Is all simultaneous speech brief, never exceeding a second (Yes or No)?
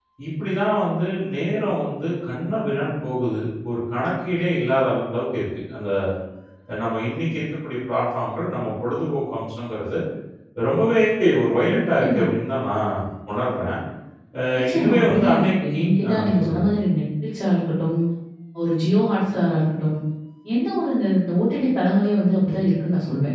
No